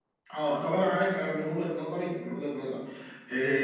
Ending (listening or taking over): listening